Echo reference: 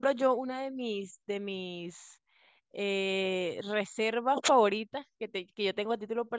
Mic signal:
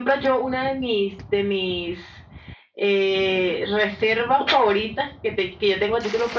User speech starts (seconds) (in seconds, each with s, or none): none